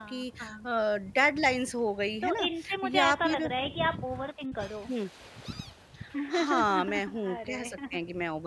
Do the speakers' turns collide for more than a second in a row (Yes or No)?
Yes